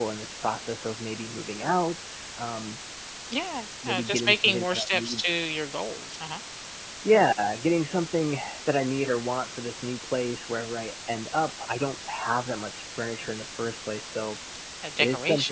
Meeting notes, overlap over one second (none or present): present